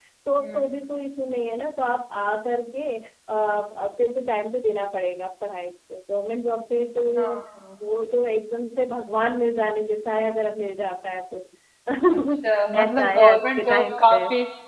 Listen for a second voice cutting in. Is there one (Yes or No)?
Yes